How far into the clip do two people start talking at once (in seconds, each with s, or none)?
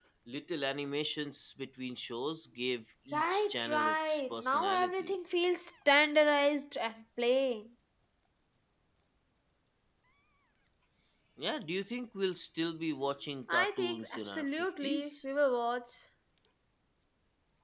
3.1 s